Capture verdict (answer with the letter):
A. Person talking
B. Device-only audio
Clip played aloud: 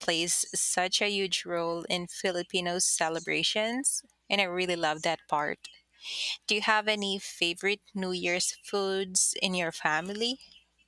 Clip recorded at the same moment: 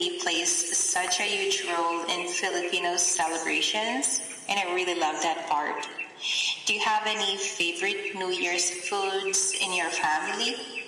B